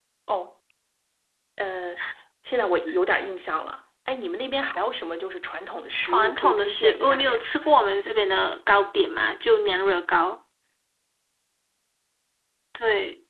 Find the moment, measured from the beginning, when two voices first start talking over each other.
6.0 s

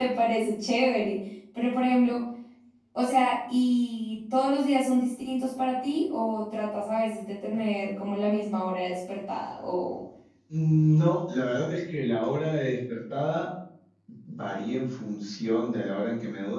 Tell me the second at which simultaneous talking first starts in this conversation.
none

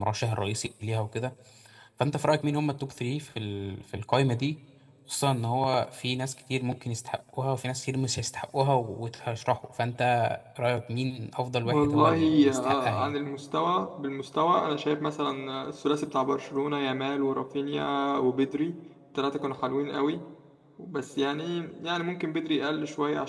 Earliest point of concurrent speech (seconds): 11.7 s

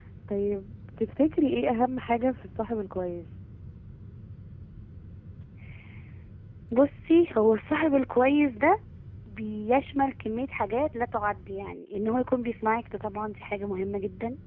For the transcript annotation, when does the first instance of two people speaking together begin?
none

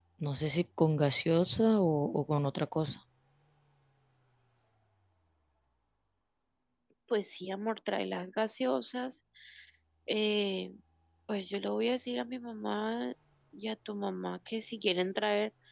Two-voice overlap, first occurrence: none

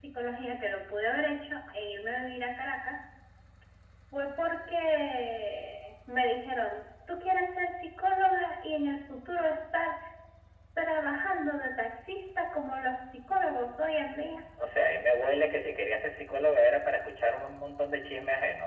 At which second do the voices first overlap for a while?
none

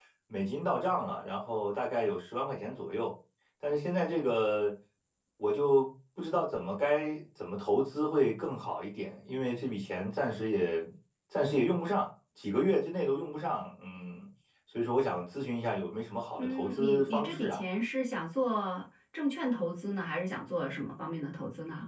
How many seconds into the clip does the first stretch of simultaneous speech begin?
16.4 s

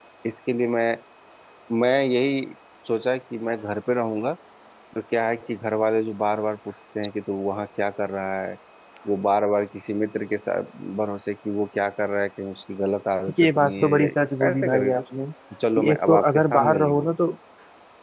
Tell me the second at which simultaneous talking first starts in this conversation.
13.4 s

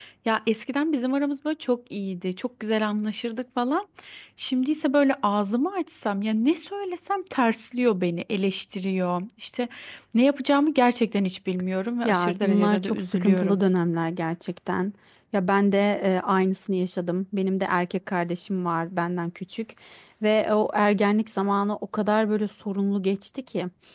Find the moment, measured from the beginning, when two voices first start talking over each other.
12.0 s

